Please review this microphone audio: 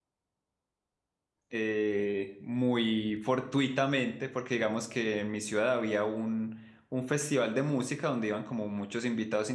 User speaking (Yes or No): Yes